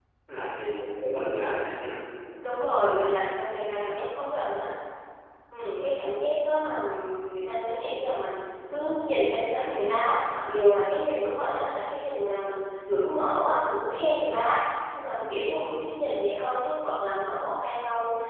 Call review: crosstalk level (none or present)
none